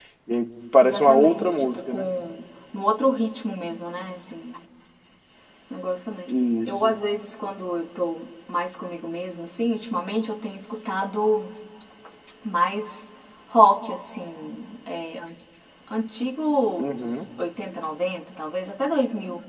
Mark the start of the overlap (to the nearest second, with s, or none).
1 s